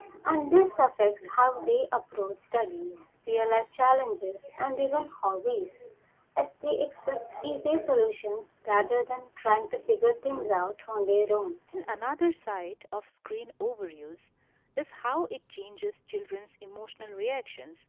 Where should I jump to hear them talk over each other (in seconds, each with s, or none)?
none